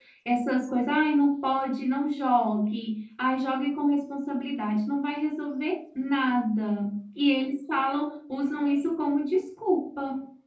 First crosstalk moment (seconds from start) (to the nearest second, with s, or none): none